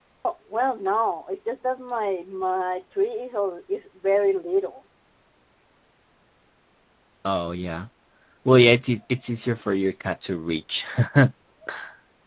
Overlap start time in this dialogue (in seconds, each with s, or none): none